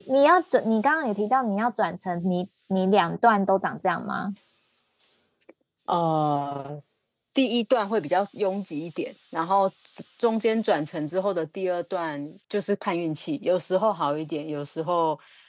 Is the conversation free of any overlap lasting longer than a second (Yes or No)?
Yes